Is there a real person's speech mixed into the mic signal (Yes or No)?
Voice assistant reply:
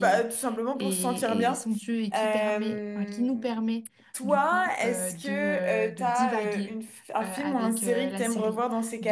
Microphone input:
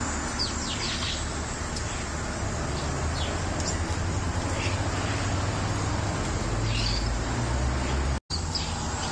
No